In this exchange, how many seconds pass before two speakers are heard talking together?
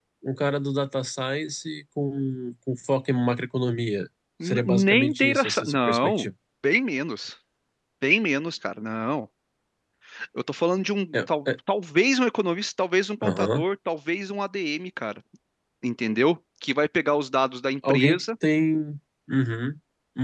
4.4 s

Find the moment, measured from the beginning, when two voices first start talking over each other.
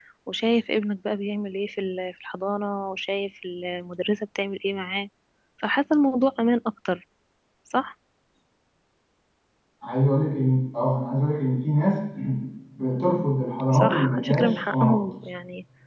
13.7 s

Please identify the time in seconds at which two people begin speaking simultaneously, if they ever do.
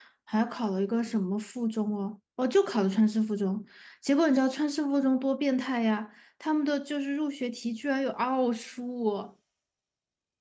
none

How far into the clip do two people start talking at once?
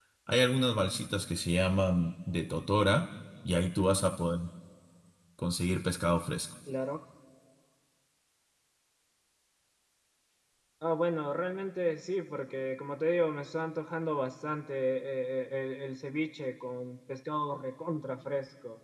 none

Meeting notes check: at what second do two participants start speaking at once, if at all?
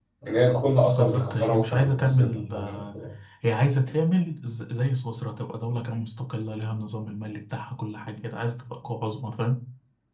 0.8 s

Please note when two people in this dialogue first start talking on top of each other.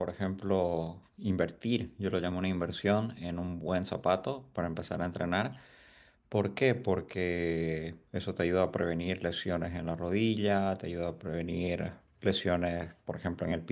none

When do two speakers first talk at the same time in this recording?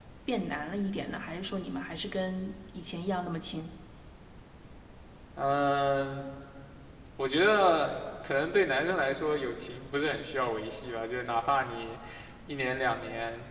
none

